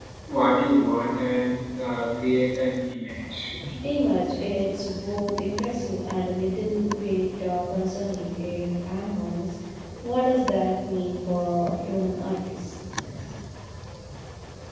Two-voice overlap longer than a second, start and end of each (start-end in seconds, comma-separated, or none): none